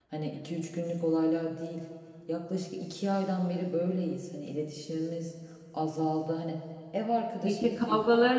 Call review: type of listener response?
taking over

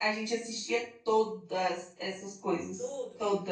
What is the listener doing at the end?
taking over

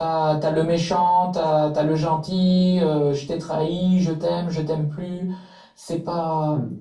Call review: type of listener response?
listening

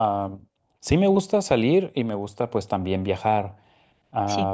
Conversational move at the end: listening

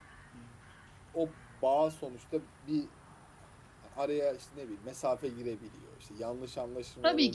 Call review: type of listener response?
taking over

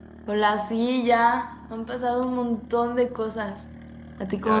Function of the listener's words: taking over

